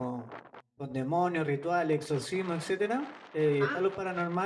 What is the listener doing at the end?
listening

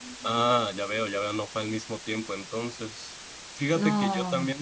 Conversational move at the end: listening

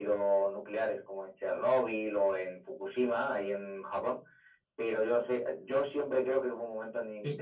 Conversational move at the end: listening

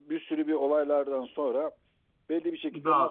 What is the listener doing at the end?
listening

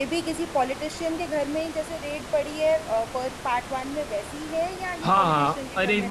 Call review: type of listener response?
taking over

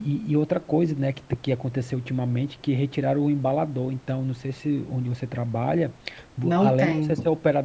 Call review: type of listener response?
listening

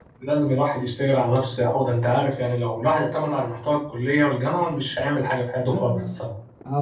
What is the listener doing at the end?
taking over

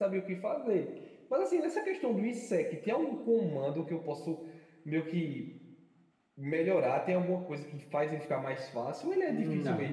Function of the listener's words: taking over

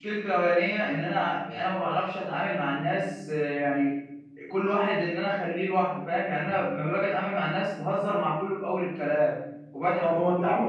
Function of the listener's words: taking over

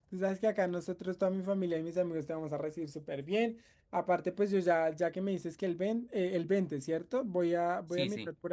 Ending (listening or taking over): listening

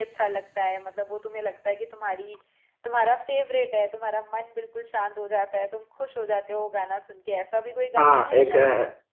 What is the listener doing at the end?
taking over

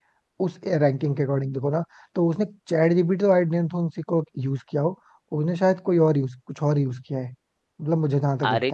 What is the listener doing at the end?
taking over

